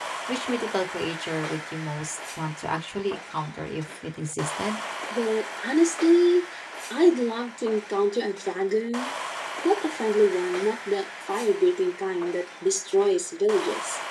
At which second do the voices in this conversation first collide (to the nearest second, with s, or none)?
none